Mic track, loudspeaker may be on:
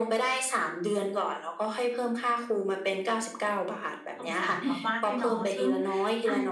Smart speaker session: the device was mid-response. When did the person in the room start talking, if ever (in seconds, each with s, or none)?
4.2 s